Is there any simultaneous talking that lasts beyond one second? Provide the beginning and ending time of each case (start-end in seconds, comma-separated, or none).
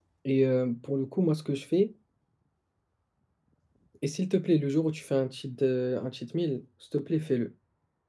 none